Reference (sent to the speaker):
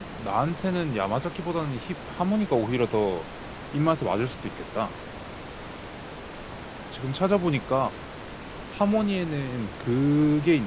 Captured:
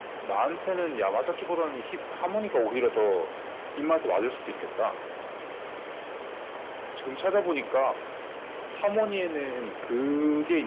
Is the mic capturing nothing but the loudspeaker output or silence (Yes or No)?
Yes